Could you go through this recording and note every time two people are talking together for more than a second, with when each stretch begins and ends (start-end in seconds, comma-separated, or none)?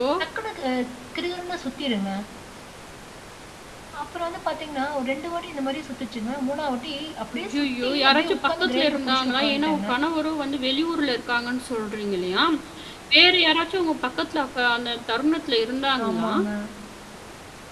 7.4-9.9